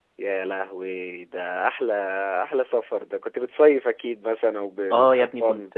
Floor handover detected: Yes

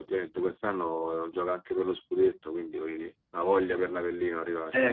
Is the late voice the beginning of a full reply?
Yes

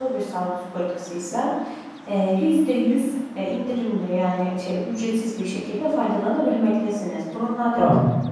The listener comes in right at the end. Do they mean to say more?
Yes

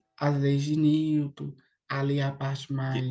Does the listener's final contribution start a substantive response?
No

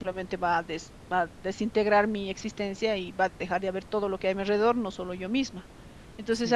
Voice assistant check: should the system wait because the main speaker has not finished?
Yes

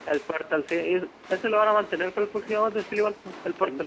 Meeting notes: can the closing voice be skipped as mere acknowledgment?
No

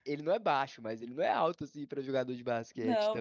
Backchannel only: No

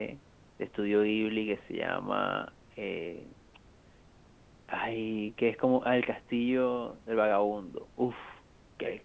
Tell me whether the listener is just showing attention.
No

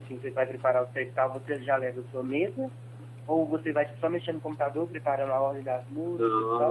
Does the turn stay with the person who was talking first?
No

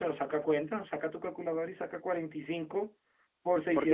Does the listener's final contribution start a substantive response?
Yes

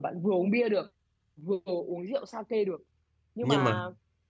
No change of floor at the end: Yes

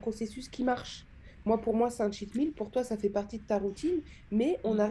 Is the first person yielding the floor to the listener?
No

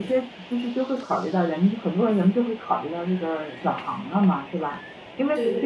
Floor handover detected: No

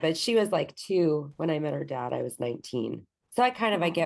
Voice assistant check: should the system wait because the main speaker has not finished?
Yes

